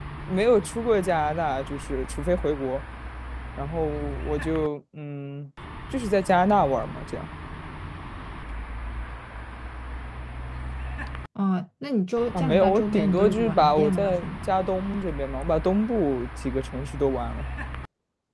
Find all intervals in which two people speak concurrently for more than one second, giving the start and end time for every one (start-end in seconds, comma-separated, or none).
12.3-14.2